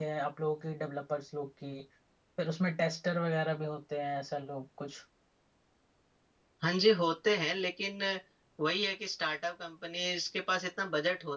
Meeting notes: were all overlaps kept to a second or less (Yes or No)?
Yes